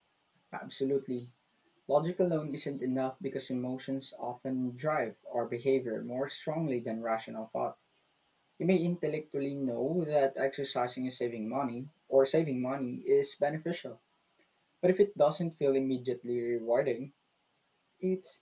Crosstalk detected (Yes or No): No